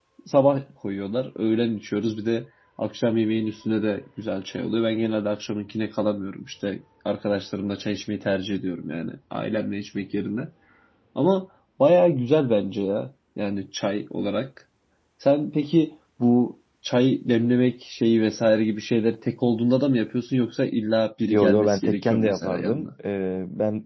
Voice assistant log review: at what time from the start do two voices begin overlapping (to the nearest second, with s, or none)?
21 s